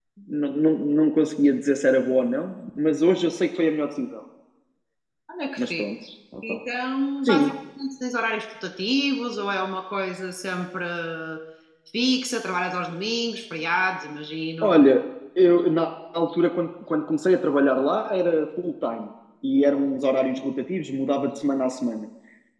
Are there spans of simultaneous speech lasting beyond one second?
No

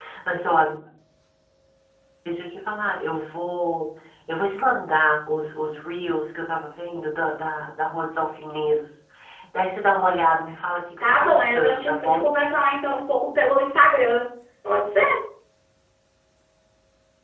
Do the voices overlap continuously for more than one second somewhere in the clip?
Yes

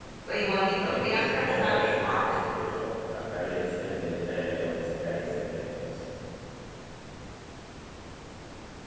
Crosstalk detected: Yes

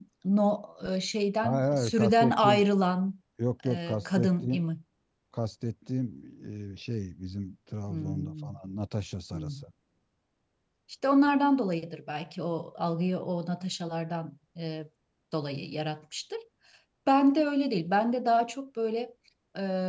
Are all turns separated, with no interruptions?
No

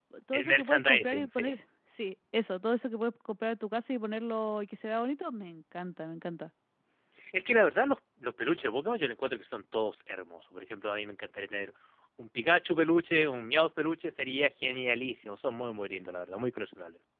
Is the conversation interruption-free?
No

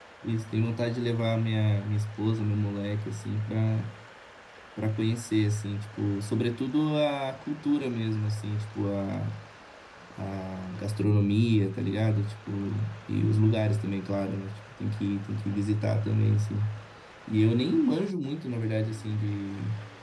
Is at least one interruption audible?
No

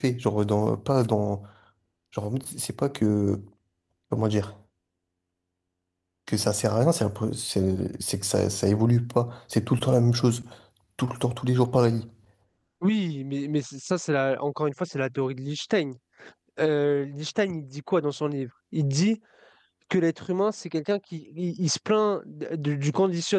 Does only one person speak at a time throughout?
Yes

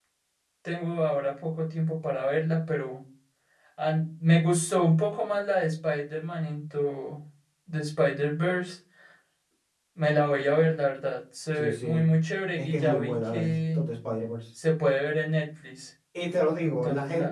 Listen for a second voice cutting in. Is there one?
Yes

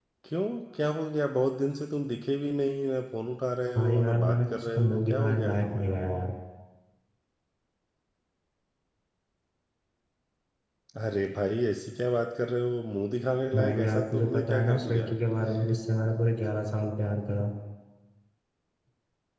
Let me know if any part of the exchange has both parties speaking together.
Yes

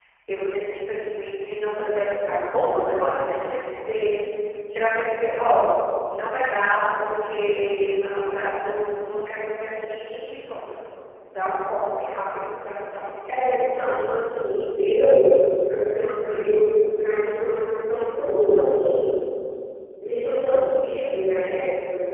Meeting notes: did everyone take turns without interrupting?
Yes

